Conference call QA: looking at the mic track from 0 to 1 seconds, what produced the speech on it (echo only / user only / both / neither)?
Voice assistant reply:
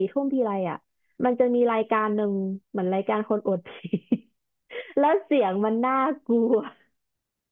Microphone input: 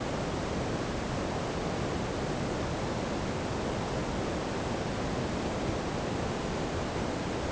neither